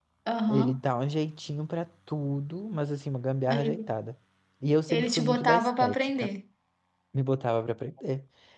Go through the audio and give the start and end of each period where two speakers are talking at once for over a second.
4.9-6.1

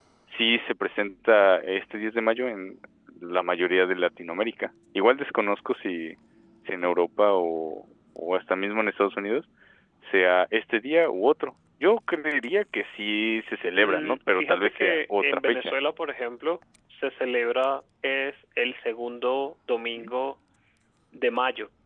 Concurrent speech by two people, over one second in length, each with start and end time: 13.8-15.7

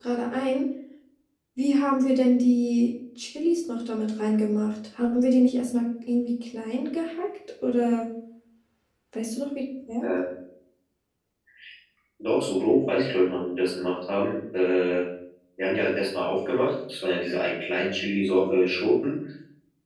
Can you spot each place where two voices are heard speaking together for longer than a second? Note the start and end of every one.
none

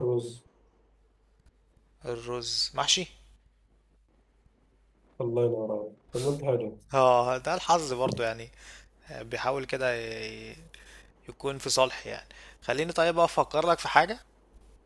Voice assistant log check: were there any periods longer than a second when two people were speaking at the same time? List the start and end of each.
none

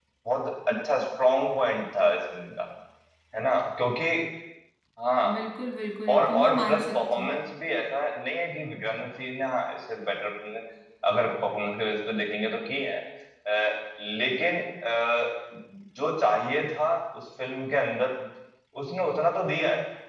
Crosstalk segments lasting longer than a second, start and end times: 6.1-7.3

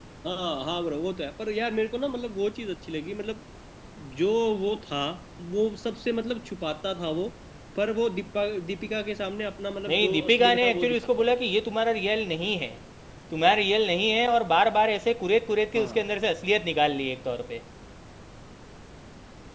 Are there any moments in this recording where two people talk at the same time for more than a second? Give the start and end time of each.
9.9-11.3

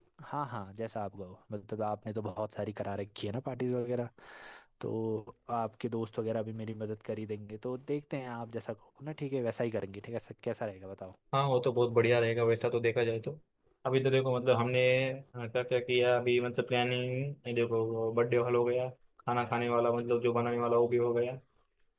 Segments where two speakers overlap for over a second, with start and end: none

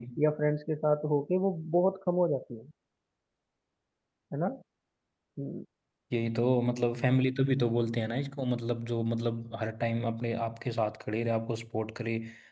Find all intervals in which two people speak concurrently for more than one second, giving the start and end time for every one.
none

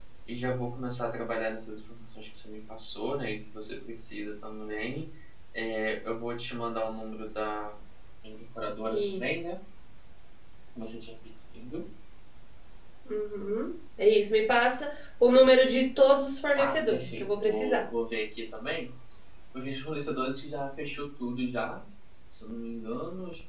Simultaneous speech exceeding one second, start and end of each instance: 16.6-17.8

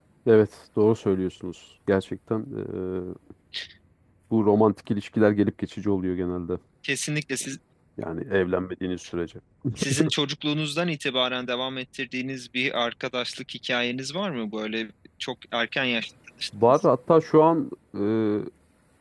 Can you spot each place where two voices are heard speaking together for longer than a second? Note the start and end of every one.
none

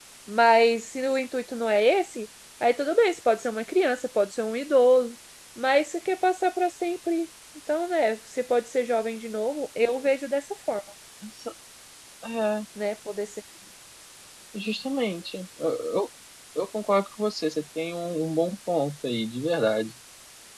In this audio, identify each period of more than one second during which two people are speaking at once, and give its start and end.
none

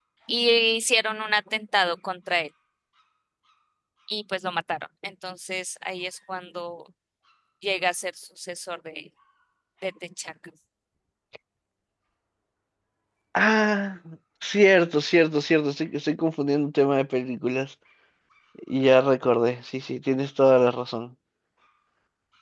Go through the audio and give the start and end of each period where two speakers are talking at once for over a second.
none

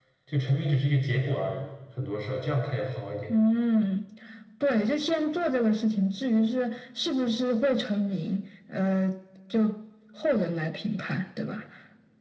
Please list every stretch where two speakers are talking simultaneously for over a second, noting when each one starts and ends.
none

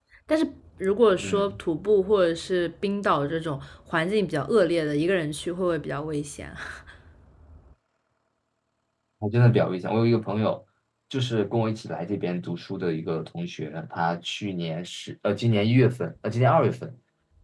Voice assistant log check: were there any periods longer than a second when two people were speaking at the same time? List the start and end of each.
none

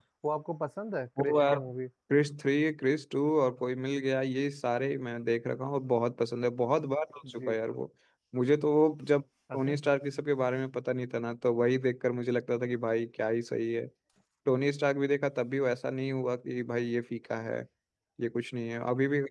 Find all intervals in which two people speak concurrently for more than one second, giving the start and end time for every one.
none

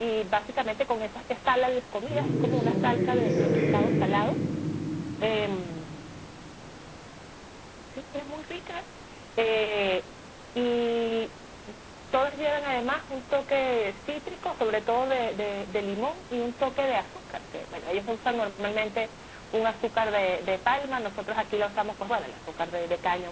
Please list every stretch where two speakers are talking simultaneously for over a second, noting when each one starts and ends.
2.1-3.8

